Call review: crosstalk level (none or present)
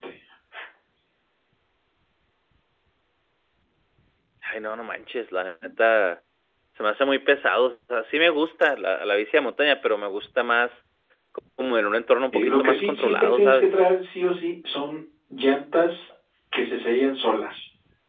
present